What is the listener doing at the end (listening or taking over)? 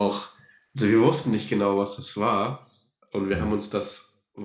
listening